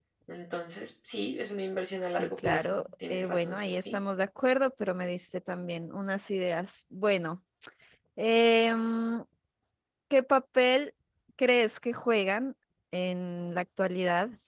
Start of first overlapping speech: 2.0 s

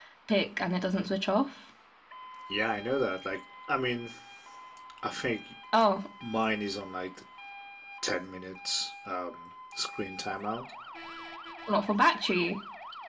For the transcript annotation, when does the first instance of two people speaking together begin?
none

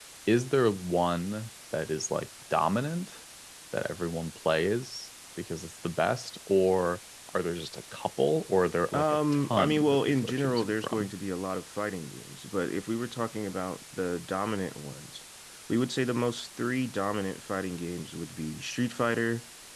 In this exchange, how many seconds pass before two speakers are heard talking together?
8.9 s

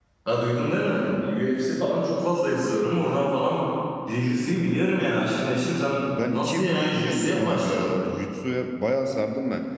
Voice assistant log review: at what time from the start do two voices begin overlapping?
6.1 s

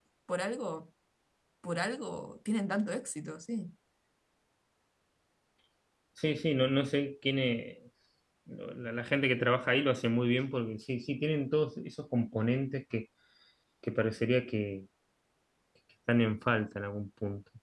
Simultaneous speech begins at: none

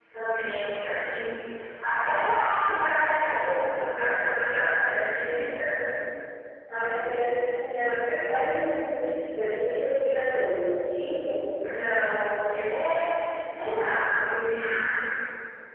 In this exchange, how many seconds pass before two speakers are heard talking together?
none

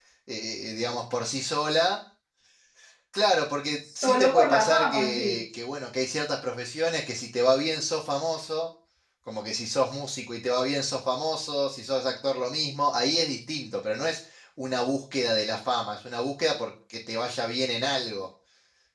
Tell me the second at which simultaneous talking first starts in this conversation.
4.0 s

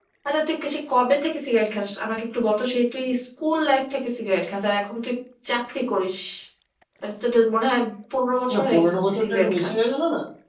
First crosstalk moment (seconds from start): 8.5 s

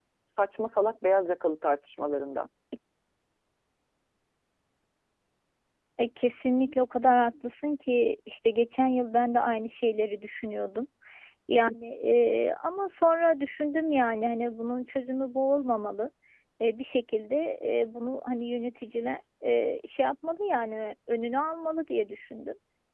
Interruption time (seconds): none

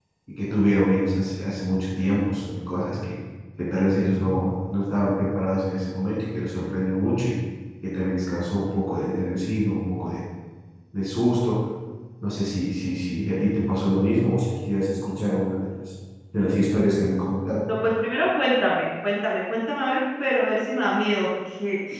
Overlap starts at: none

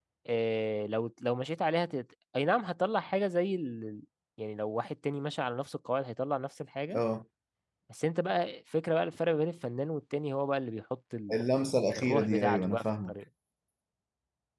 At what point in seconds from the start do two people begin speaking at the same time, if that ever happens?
11.9 s

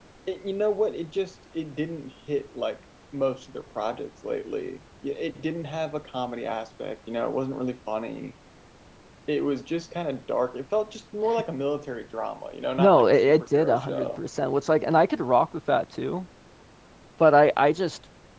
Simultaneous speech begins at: 12.8 s

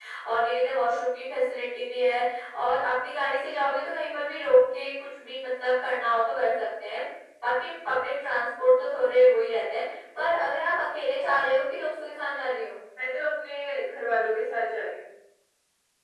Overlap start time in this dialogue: none

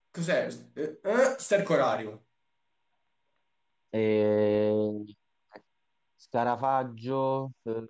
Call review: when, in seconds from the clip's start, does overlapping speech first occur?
none

